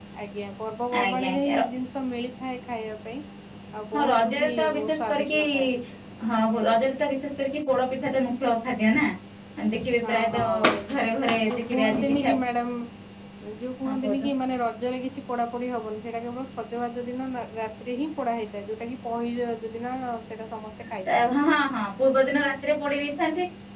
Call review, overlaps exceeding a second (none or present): present